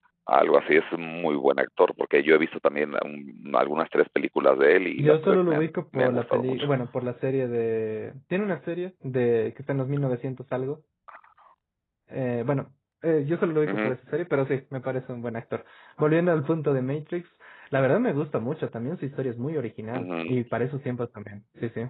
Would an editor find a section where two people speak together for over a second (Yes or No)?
Yes